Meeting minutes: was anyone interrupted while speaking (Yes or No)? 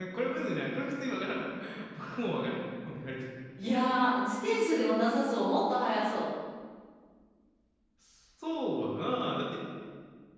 No